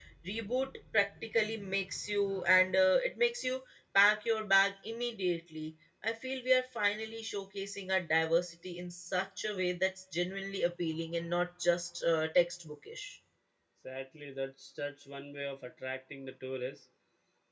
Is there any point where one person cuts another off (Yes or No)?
No